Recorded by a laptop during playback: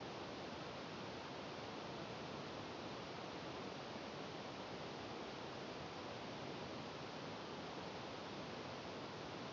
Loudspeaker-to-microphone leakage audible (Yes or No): No